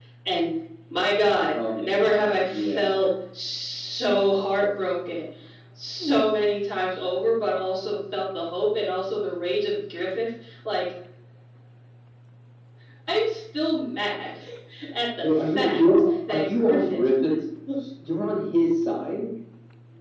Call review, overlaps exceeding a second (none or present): present